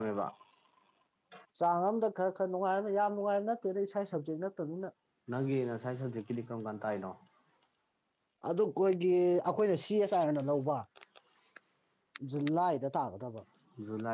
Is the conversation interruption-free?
Yes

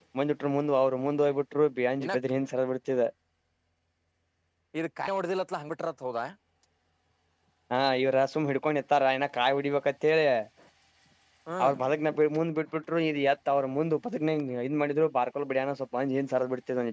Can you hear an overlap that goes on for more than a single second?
No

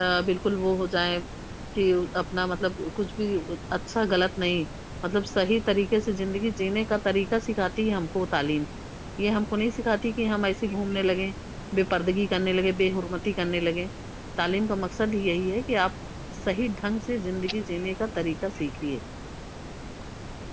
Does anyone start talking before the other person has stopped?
No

